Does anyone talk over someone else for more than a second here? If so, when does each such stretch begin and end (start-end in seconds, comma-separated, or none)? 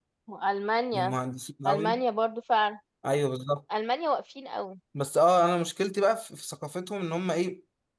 none